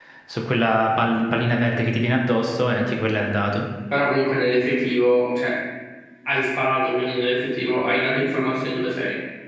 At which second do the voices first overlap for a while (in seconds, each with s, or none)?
none